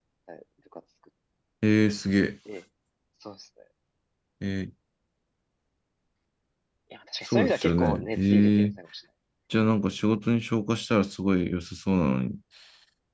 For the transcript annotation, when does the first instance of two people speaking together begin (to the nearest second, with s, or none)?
7 s